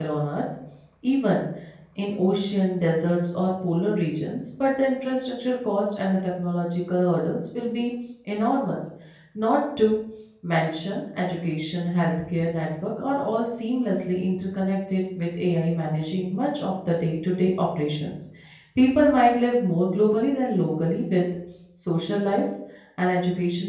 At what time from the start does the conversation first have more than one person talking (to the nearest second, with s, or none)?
none